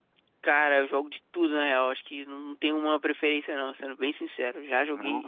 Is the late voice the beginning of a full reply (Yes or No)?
No